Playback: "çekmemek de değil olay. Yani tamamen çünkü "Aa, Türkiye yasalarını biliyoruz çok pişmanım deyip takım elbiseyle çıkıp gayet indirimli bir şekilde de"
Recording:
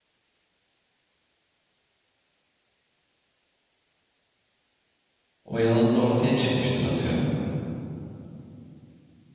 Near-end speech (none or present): present